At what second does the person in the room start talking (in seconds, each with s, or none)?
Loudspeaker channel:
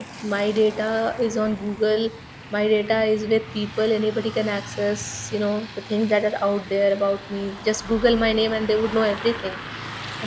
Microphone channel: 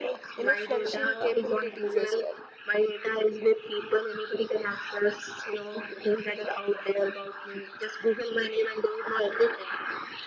0.3 s